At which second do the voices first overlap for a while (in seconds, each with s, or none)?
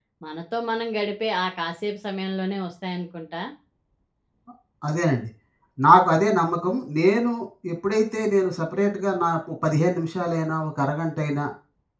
none